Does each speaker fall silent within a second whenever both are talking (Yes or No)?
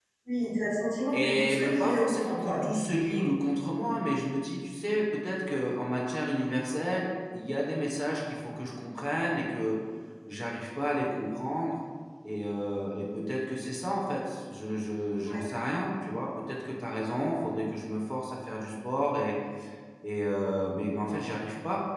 No